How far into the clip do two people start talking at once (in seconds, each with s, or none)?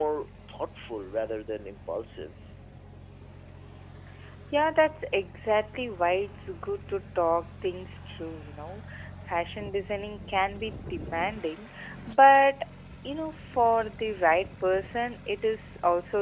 none